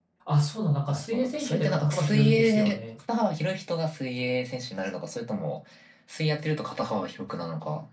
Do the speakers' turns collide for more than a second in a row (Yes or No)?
Yes